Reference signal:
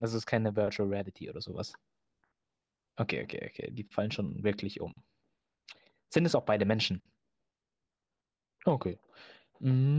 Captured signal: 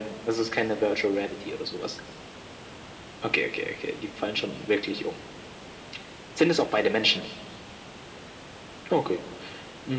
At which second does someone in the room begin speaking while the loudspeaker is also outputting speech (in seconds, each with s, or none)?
none